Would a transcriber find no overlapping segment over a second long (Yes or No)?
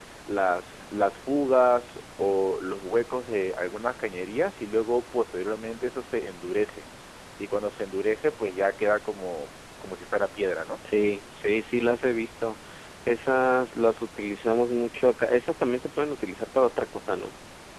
Yes